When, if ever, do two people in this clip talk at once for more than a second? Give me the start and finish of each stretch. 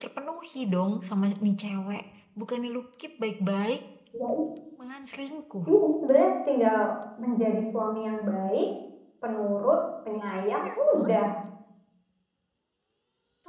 none

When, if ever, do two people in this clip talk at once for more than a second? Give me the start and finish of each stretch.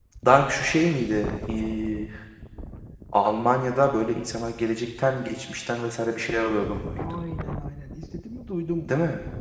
none

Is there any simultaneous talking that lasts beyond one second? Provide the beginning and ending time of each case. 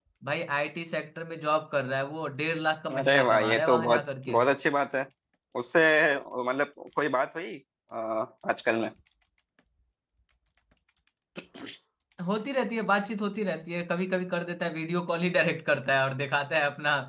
2.9-4.4

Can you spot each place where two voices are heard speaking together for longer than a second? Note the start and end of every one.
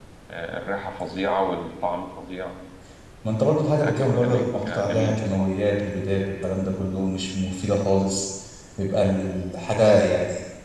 3.8-5.5

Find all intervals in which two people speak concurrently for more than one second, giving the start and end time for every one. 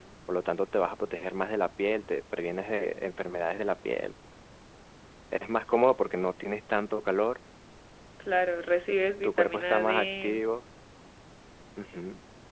9.2-10.4

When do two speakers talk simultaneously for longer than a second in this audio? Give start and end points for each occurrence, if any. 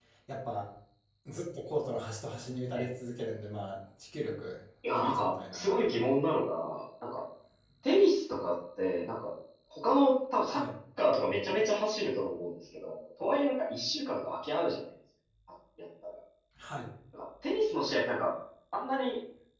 4.9-6.1

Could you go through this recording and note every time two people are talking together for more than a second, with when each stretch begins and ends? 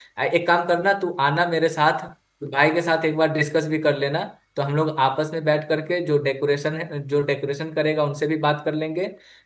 none

